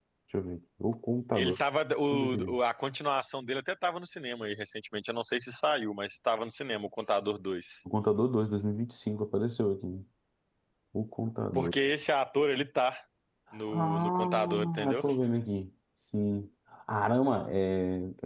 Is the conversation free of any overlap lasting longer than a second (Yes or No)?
No